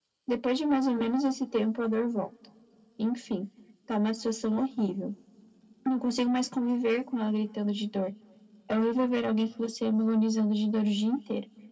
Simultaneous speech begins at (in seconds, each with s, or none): none